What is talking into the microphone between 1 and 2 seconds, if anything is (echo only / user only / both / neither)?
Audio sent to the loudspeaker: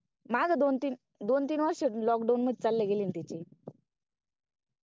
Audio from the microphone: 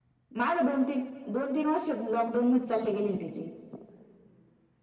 echo only